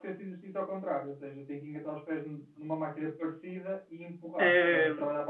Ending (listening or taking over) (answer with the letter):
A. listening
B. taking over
B